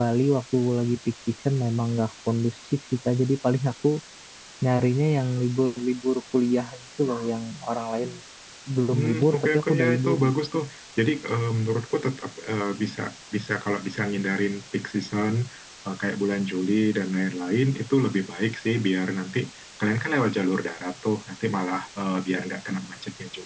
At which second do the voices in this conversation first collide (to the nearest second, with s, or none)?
9 s